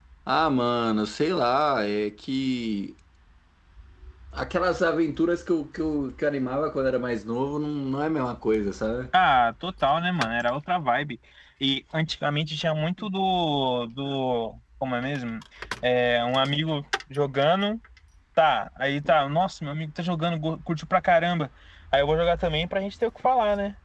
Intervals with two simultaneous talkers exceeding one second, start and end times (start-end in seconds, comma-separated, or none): none